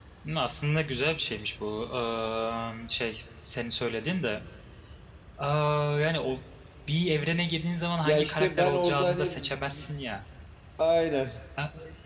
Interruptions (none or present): present